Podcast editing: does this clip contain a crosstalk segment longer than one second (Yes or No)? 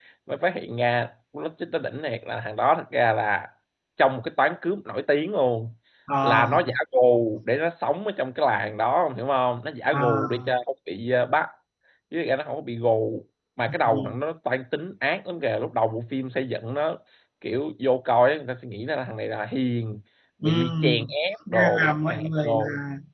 Yes